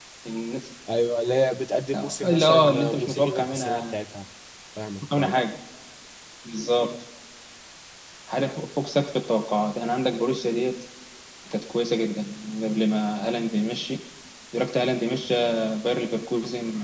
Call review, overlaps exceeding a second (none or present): present